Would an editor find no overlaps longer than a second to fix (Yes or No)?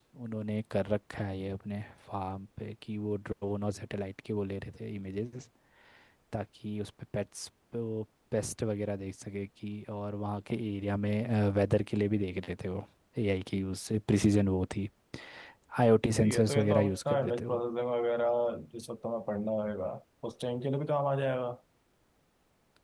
No